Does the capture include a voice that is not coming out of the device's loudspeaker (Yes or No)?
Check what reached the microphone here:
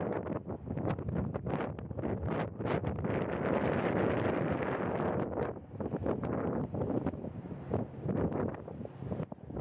No